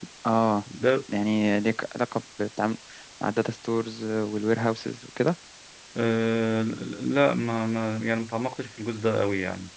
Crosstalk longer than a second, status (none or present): none